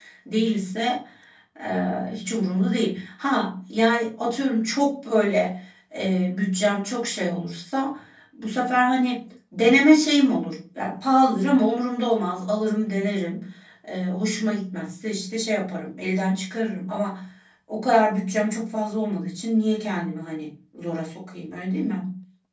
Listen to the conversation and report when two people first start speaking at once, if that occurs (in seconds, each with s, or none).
none